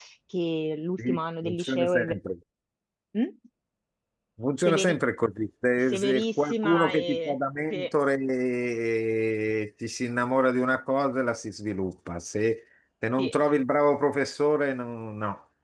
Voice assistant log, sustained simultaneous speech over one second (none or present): present